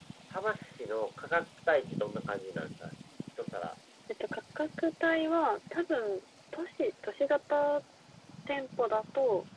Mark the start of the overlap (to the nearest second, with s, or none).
none